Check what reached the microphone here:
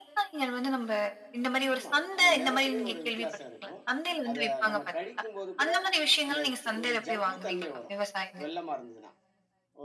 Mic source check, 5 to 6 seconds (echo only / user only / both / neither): both